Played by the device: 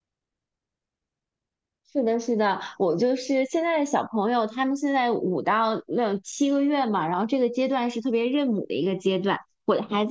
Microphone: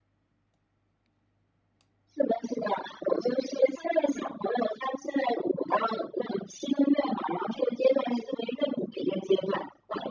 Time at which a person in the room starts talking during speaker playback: none

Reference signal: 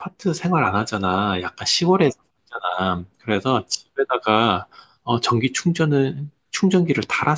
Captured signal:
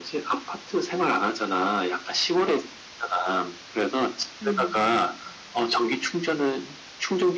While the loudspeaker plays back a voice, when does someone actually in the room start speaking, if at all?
4 s

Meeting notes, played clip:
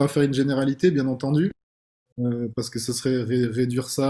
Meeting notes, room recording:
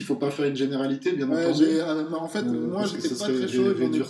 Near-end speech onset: 1 s

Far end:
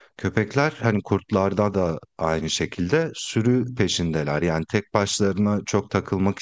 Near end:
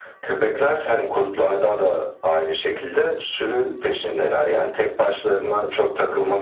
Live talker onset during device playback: none

